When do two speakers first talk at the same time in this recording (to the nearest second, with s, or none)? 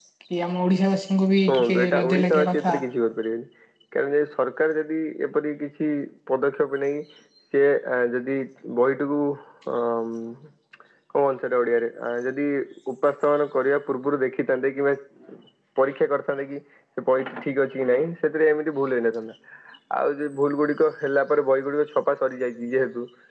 1 s